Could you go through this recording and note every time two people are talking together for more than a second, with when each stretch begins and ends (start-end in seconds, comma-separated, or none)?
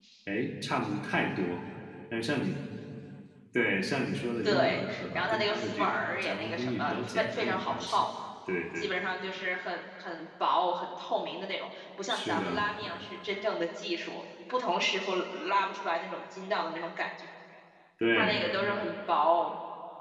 4.4-8.0